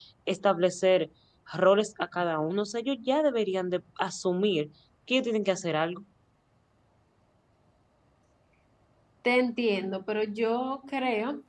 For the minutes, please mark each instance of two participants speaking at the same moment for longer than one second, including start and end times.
none

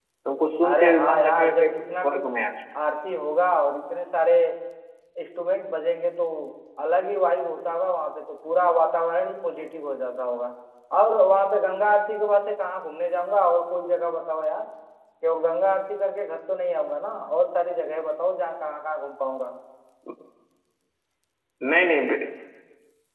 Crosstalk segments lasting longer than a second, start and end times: 0.7-2.4

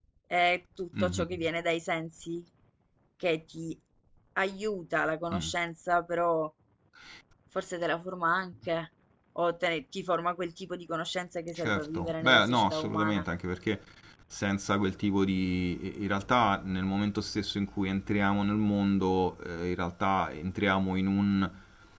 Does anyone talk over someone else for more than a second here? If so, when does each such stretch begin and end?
11.6-13.2

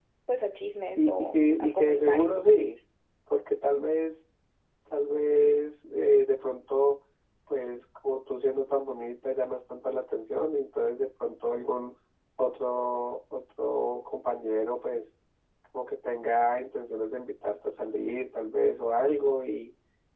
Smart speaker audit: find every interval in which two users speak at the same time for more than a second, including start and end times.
1.0-2.3

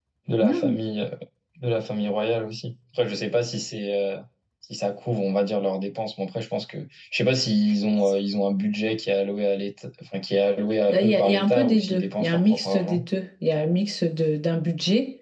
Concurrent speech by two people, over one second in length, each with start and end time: 10.9-13.0

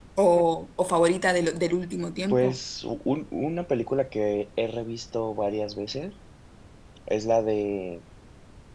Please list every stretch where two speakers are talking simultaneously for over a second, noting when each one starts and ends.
none

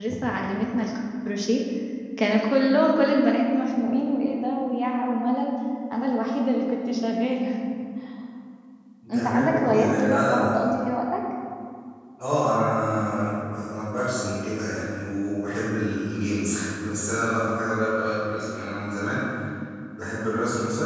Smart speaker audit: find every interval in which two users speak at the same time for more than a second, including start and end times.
9.1-10.5

